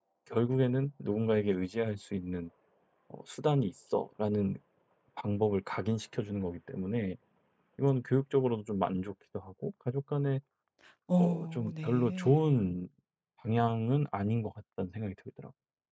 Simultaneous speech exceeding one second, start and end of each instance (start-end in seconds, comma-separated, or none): 11.2-12.5